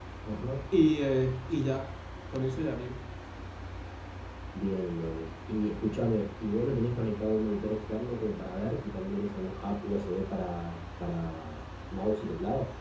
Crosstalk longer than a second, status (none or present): none